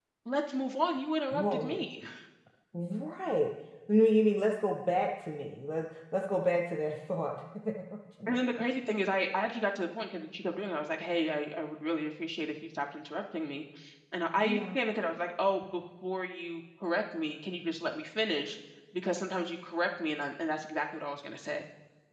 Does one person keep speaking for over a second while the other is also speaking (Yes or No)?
No